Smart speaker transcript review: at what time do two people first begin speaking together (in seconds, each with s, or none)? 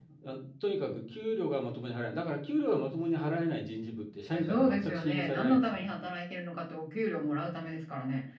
4.3 s